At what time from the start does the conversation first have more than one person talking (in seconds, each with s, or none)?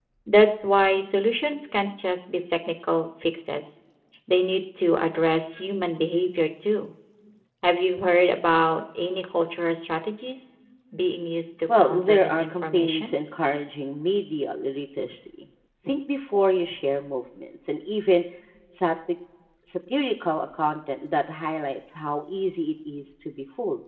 11.8 s